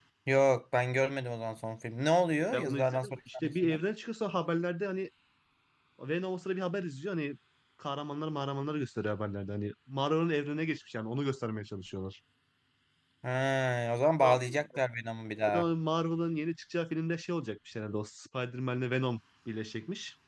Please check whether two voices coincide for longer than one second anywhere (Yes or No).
Yes